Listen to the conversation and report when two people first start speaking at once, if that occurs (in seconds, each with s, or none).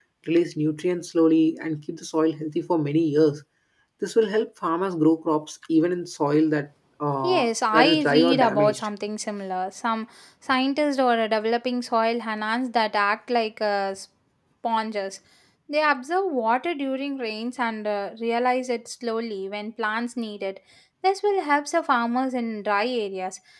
7.2 s